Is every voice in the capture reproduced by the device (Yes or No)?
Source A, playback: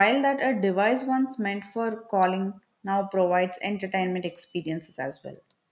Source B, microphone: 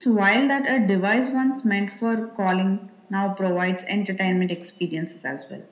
Yes